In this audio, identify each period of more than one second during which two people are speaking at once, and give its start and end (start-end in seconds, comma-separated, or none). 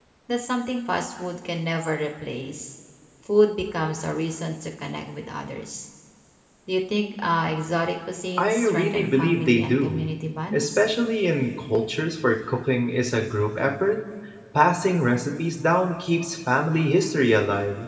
8.4-10.1